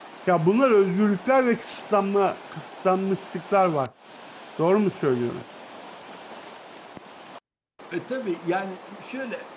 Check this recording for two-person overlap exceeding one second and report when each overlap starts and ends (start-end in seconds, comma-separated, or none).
none